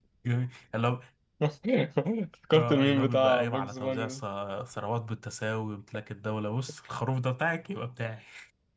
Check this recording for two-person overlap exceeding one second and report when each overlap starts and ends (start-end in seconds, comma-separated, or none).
2.5-4.2